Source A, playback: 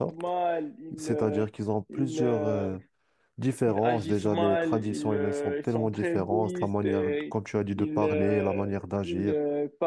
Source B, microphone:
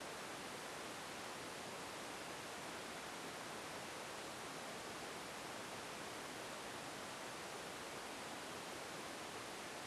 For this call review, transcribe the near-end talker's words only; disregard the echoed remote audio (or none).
none